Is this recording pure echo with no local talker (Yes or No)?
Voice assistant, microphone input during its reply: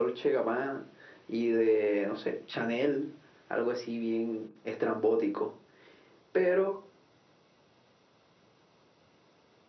Yes